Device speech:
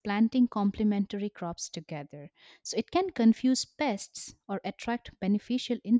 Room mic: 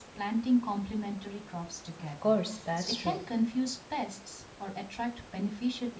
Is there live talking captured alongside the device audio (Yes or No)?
Yes